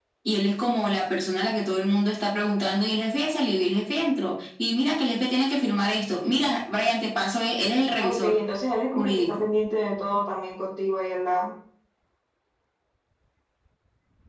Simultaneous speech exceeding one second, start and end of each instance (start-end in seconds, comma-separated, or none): none